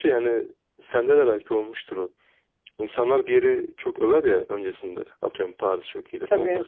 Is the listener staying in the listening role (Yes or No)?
Yes